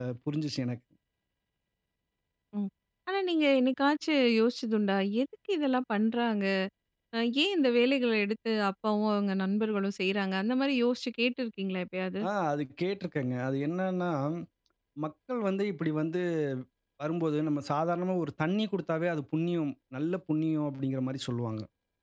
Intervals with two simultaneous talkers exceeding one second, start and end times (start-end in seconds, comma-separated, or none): none